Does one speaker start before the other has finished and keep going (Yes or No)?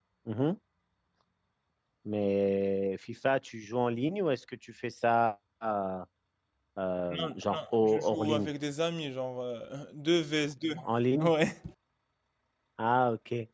Yes